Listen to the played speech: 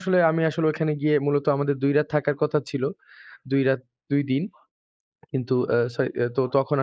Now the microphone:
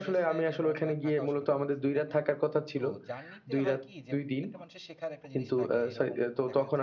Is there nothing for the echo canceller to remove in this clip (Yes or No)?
No